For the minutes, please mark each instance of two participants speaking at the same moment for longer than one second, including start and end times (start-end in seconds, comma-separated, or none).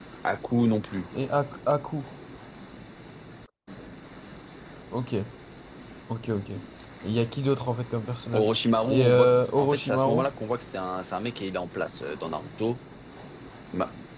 8.9-10.2